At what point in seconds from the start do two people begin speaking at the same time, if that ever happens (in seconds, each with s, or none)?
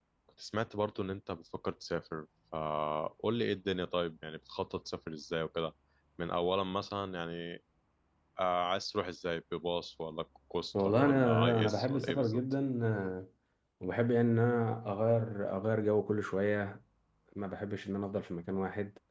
10.7 s